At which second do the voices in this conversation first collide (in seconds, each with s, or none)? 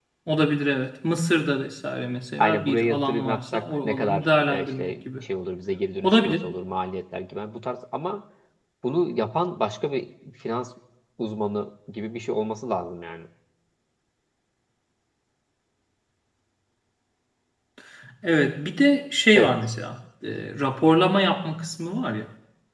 2.4 s